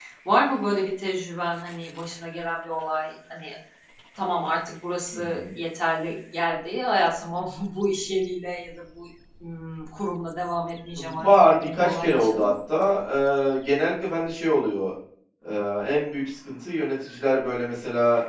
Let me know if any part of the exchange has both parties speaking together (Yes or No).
Yes